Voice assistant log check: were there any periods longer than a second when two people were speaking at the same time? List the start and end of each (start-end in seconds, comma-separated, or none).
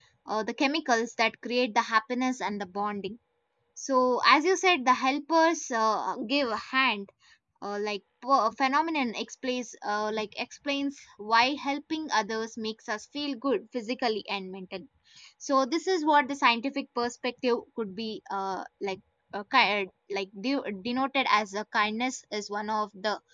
none